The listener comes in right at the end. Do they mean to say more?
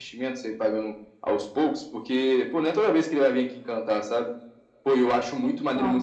No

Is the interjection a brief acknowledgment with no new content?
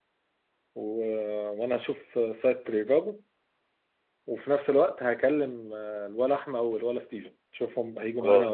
No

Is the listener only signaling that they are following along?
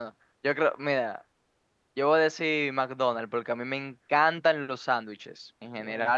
Yes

